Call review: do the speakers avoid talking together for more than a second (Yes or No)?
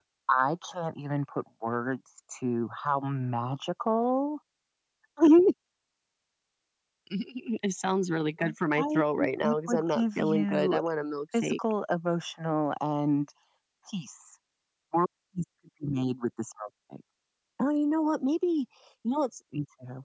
No